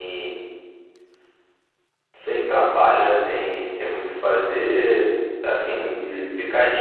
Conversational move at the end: listening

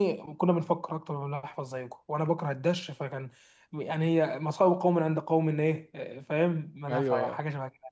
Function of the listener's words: taking over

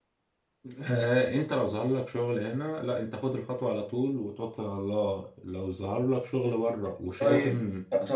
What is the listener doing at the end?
taking over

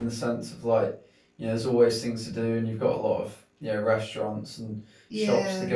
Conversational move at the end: listening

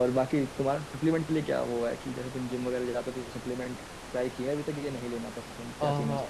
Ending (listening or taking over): taking over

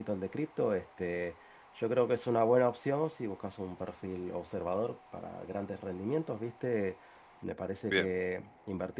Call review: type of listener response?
listening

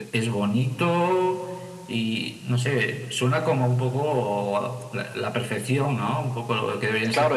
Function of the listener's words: taking over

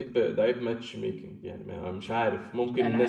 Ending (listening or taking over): listening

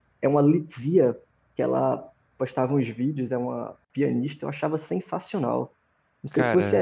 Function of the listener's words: listening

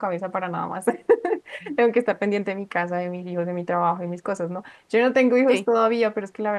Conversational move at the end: listening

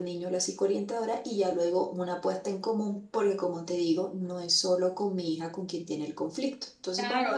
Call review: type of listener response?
taking over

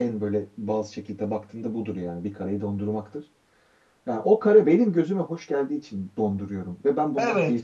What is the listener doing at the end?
taking over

